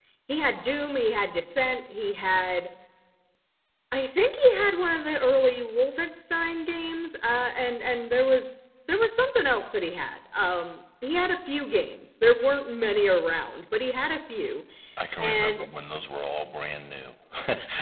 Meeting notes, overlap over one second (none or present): none